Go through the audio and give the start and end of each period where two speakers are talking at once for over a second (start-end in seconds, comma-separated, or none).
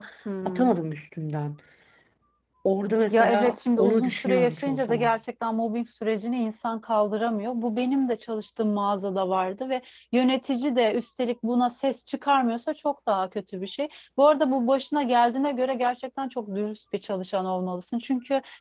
3.1-5.1